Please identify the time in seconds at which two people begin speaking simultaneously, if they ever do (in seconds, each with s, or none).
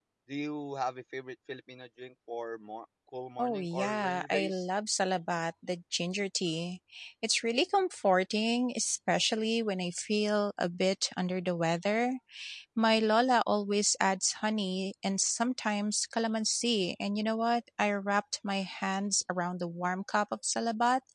3.4 s